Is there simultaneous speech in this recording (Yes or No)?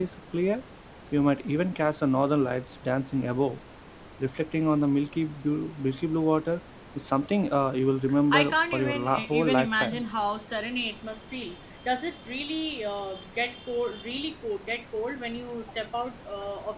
Yes